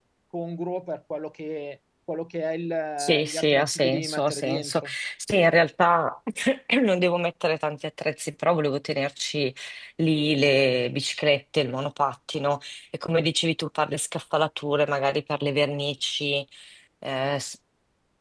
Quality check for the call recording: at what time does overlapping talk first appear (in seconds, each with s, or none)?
3.0 s